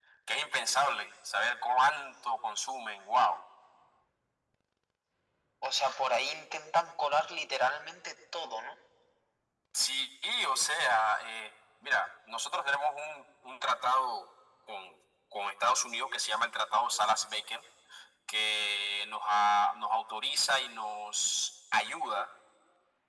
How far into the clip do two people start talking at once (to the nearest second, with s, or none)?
none